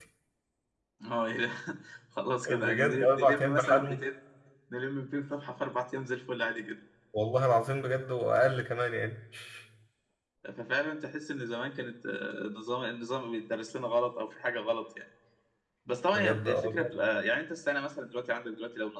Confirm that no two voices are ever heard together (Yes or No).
No